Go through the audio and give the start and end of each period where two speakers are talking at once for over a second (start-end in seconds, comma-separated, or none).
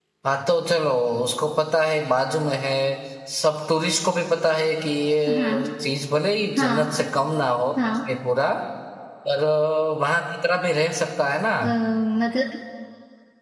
none